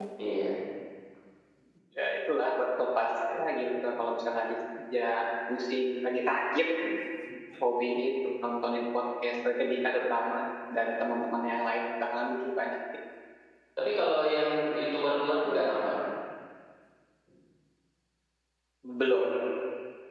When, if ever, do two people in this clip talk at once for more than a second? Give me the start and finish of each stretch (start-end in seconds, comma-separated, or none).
none